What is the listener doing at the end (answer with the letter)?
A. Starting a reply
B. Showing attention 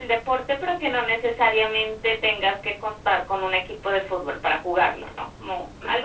A